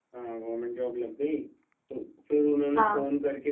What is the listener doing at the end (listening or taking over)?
listening